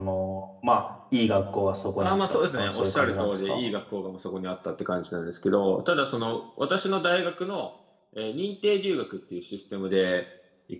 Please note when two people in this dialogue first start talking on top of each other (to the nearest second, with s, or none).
2 s